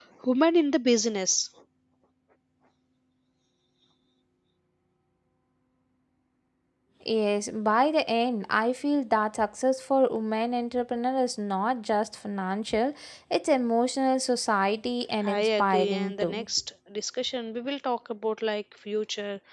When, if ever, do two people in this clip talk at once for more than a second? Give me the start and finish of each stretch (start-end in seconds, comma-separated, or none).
15.2-16.4